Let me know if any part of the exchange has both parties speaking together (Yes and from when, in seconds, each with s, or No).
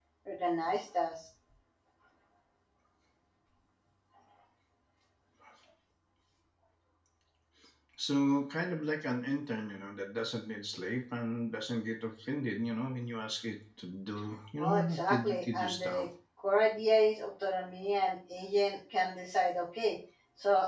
Yes, from 14.6 s